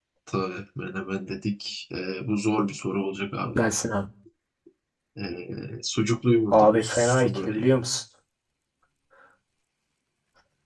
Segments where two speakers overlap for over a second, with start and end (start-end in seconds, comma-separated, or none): 6.5-7.7